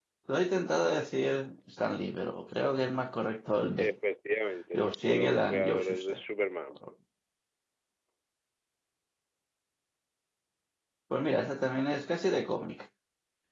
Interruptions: present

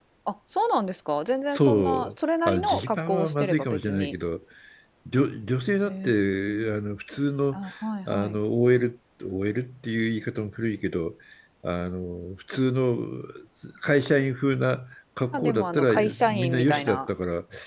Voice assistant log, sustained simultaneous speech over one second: present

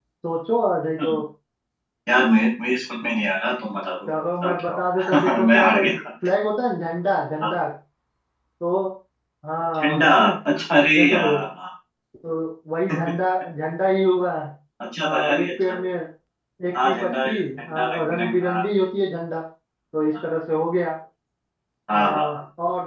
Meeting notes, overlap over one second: present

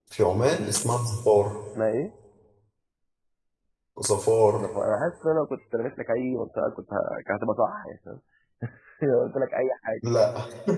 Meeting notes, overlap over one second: none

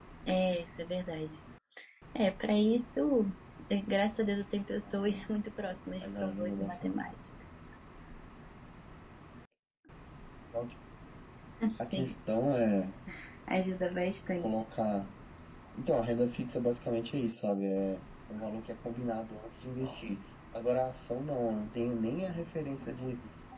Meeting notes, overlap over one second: present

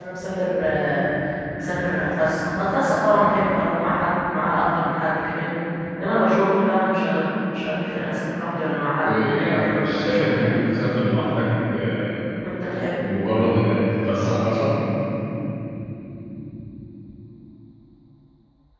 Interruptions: present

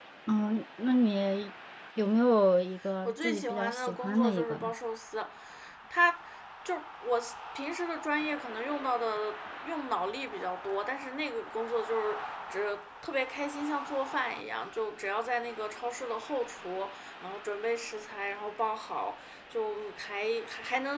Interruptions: present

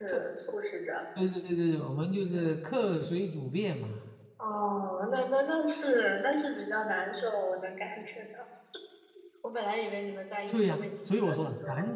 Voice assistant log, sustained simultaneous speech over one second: present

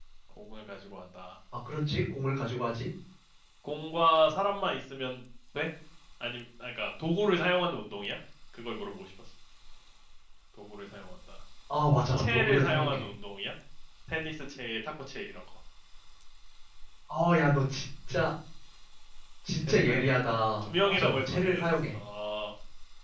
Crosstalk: present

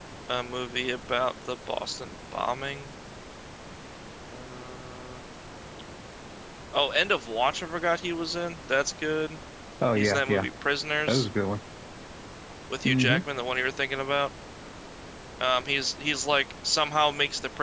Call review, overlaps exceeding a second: none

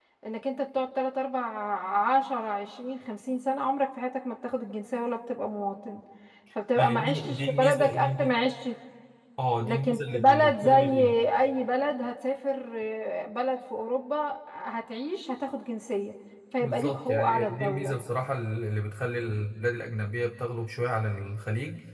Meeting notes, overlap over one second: present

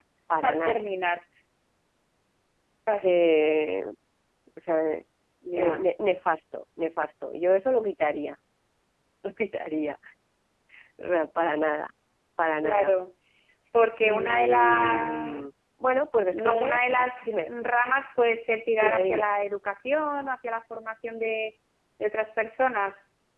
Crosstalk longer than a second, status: present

